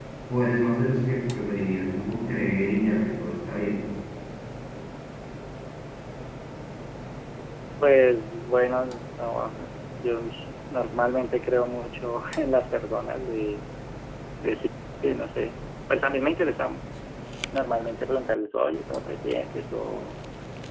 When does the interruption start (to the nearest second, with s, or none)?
none